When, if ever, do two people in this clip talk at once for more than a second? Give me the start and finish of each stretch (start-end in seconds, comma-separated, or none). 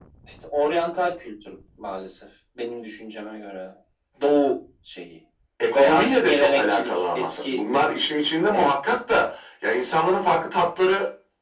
5.7-7.6